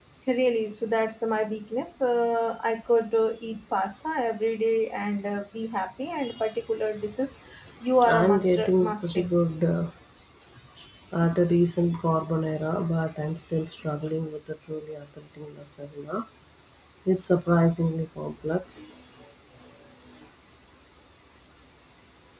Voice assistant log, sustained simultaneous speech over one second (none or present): present